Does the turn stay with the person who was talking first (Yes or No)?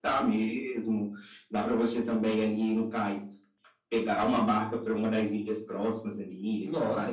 No